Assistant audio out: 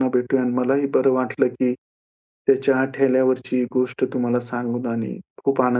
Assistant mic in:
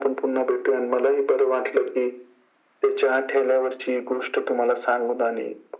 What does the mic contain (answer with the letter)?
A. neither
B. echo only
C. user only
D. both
B